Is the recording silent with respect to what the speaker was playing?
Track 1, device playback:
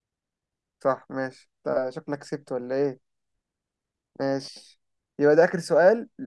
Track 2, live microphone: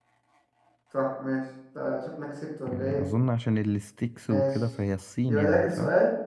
No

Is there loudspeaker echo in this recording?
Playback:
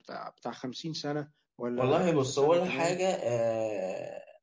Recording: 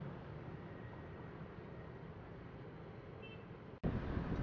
No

